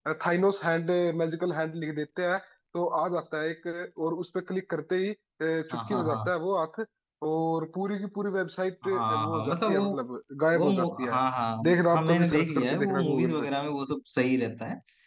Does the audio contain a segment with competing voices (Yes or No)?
Yes